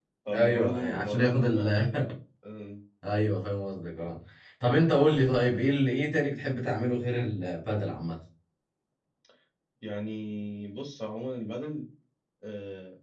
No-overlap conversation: No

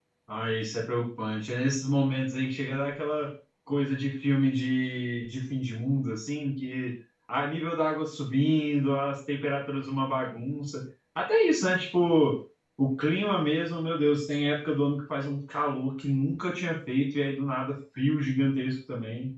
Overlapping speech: No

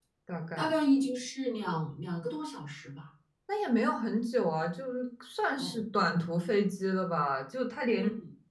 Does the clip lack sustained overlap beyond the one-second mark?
Yes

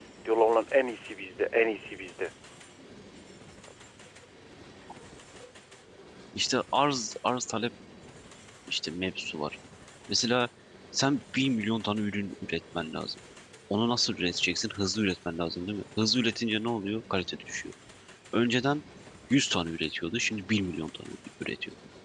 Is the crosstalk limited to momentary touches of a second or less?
Yes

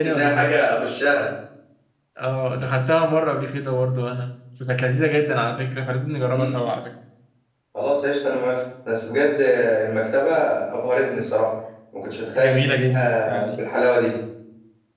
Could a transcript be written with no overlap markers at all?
No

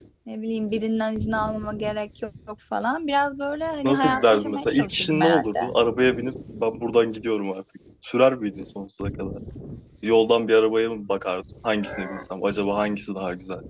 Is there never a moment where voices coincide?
No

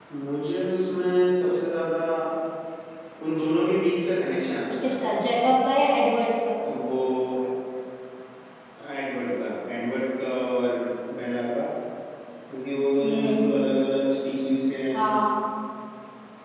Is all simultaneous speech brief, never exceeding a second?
Yes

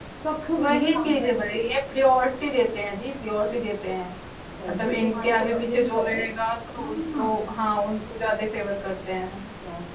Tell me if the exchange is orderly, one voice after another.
No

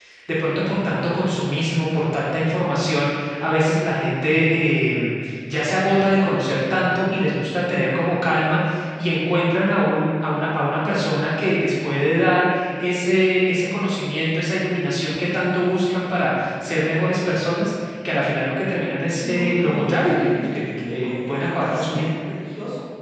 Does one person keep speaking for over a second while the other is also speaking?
Yes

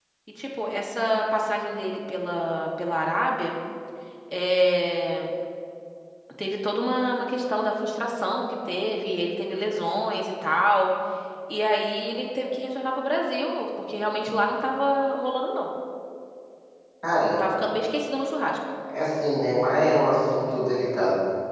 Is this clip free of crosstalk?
Yes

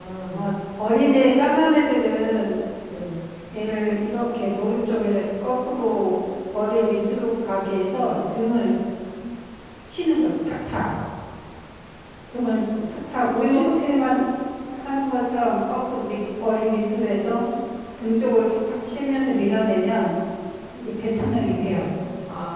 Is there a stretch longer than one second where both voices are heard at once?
No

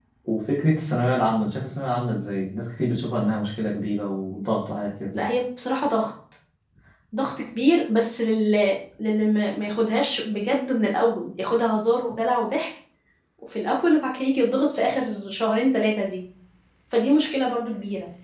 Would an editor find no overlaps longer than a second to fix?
Yes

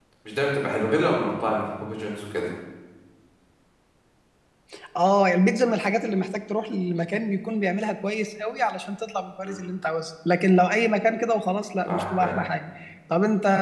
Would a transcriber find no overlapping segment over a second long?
Yes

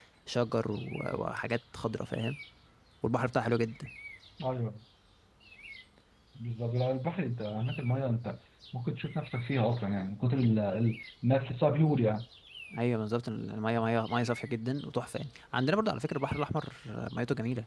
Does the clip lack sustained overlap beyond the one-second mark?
Yes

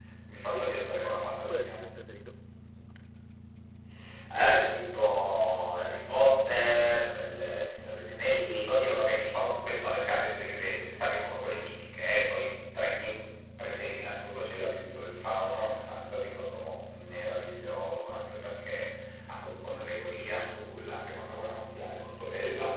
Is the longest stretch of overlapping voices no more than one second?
Yes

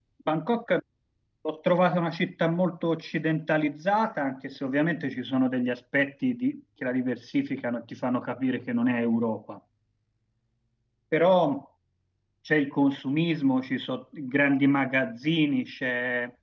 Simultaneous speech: No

